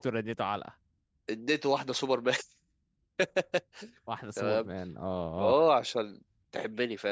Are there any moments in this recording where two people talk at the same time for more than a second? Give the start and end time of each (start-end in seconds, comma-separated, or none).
none